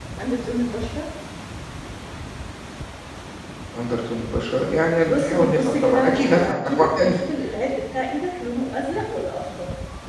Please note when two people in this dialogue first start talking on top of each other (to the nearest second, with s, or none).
5 s